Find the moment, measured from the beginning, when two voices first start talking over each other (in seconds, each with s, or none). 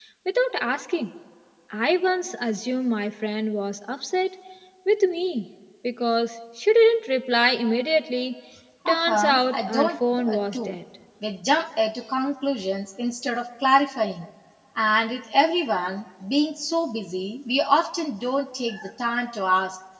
8.9 s